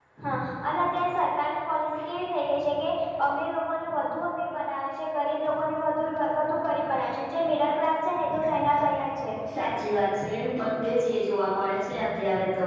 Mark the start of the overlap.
none

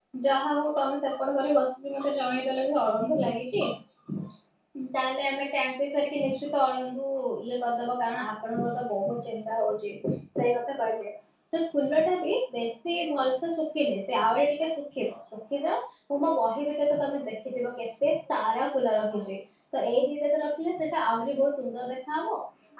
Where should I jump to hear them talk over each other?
none

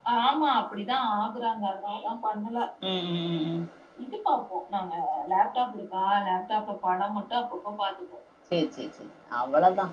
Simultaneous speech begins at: none

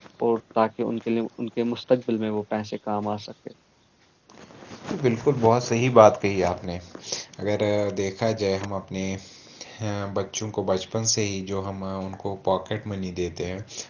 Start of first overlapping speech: none

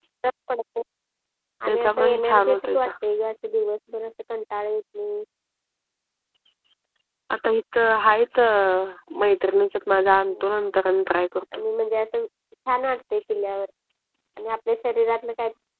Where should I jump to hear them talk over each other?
1.7 s

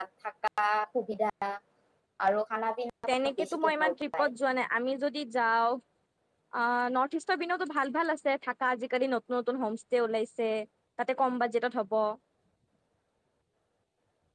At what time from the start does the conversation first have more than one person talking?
3.1 s

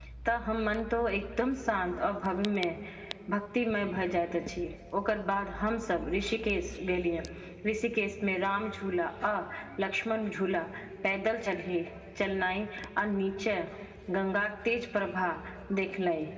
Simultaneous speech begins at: none

